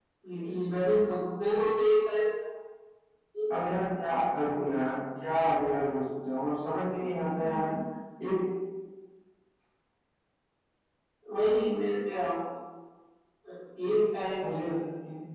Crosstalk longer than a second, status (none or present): none